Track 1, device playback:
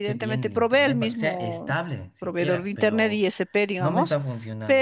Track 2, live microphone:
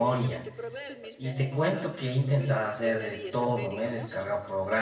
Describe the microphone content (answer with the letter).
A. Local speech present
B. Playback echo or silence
A